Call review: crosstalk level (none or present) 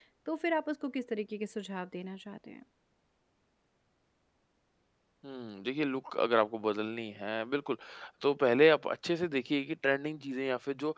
none